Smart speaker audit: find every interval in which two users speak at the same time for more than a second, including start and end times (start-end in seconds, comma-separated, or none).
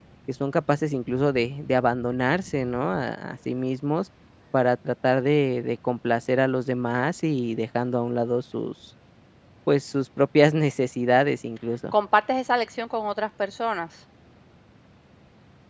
none